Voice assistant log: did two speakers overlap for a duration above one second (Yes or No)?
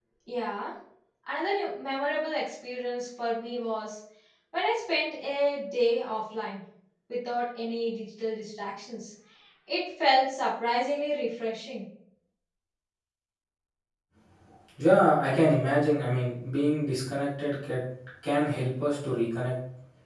No